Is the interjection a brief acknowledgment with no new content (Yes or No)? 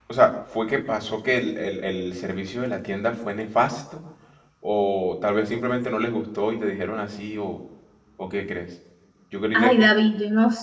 No